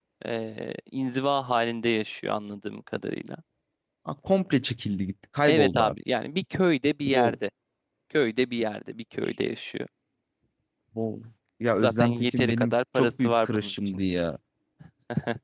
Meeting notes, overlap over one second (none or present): present